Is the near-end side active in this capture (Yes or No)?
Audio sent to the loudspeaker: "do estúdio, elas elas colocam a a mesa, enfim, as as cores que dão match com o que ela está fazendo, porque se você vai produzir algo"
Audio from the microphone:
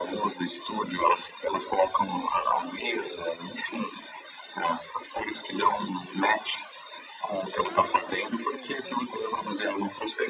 Yes